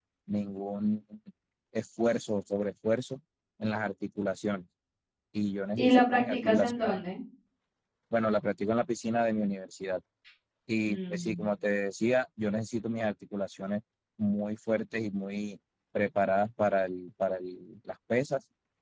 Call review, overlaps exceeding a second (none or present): present